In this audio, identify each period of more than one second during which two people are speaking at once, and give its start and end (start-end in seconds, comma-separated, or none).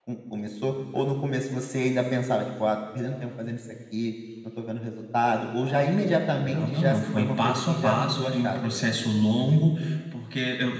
6.4-8.9